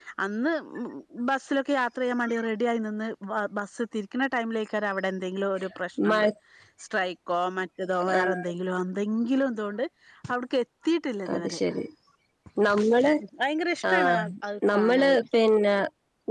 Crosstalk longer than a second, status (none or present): none